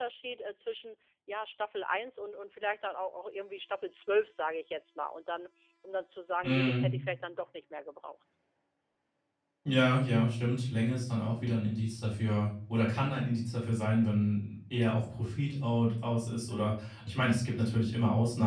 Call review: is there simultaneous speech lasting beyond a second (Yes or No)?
No